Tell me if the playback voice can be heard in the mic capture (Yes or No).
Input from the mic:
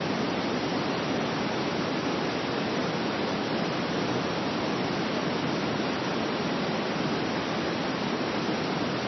No